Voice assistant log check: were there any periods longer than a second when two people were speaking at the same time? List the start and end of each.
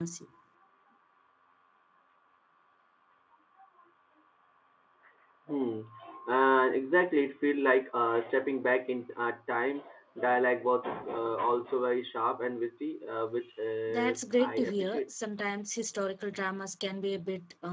13.9-15.1

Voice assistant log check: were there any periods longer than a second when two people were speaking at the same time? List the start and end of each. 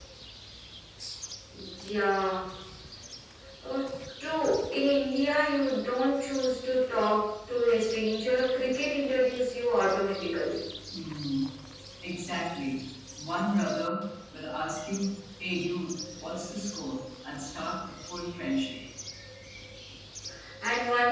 none

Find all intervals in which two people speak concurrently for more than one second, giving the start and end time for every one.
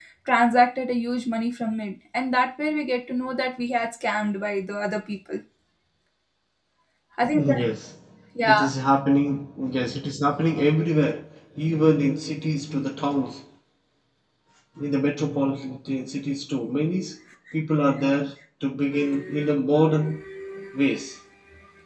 none

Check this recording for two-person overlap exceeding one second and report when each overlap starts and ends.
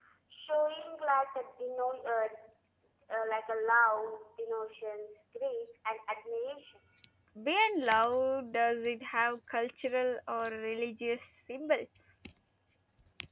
none

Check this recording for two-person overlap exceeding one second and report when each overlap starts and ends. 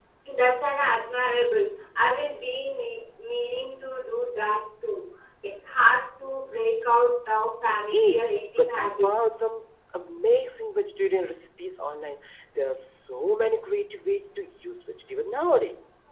7.6-9.1

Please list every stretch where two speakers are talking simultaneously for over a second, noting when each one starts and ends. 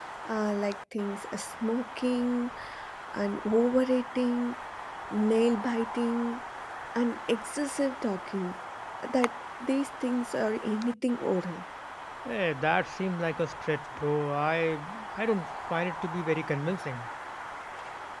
none

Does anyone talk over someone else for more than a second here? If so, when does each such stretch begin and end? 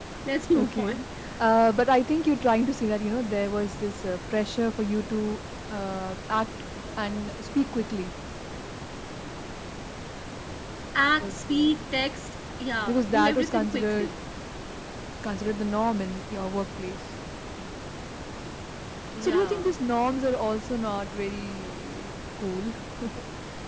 12.9-14.2

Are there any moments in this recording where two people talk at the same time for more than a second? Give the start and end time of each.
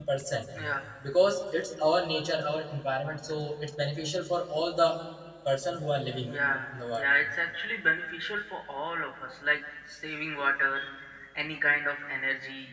none

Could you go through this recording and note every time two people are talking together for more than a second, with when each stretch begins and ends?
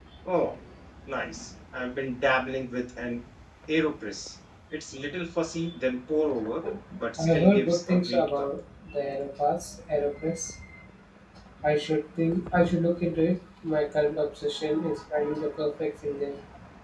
7.2-8.5

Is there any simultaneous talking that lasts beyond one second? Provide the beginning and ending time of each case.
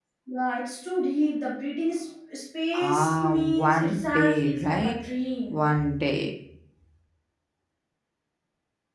2.7-5.0

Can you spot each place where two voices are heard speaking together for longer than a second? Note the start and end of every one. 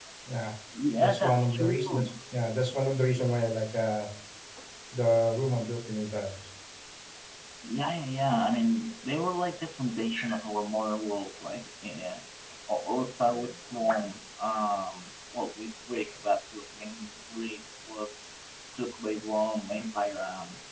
0.9-2.1

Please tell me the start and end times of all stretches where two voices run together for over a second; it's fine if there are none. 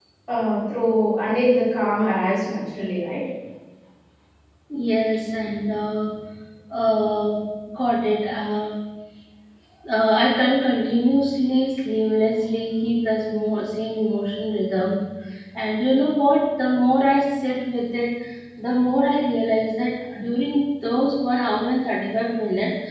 none

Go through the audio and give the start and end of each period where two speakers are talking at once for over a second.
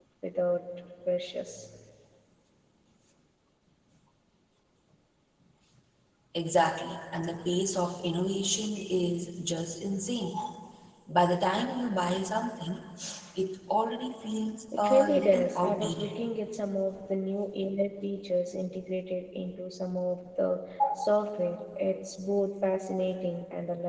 14.8-16.1

